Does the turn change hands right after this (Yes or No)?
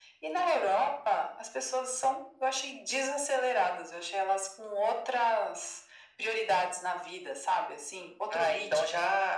Yes